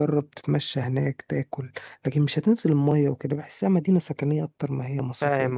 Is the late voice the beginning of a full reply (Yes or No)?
Yes